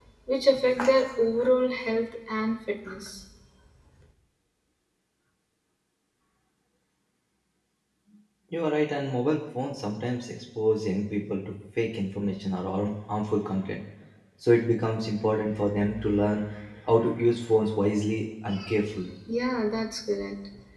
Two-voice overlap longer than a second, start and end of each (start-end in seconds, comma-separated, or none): none